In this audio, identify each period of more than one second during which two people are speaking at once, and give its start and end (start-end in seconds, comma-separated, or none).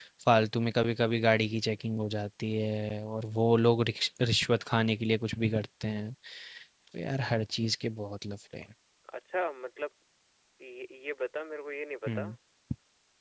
none